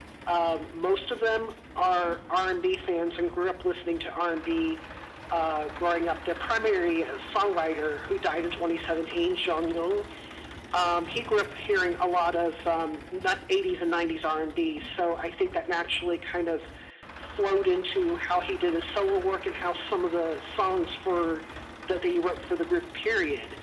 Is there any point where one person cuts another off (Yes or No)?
No